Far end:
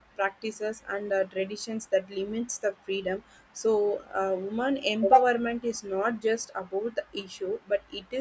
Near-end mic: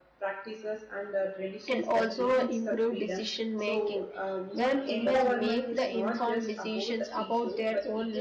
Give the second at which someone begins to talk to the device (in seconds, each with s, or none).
1.7 s